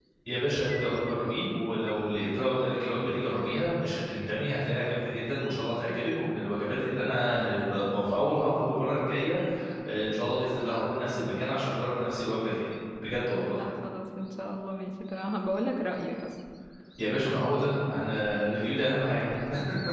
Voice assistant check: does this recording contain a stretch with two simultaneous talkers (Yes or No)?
No